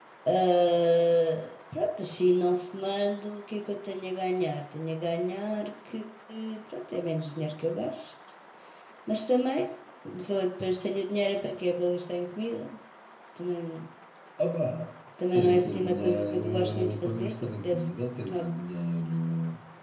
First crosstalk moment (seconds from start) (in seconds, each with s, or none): 15.2 s